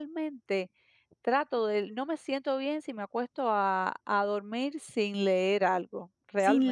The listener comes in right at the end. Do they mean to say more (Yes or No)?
Yes